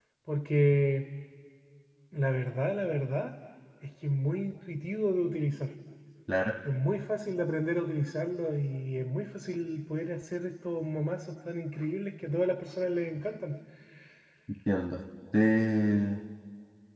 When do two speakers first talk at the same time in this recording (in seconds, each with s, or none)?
none